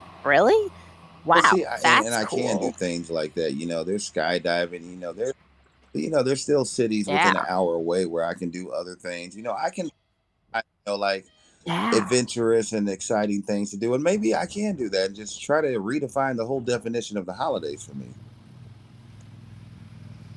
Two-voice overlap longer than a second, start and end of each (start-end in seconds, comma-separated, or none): 1.3-2.7